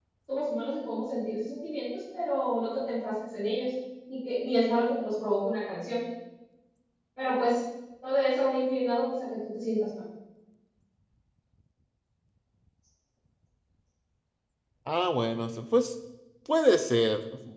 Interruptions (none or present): none